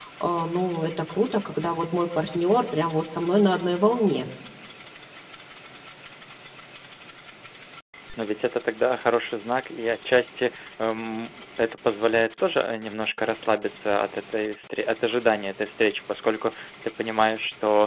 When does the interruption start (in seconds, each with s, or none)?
none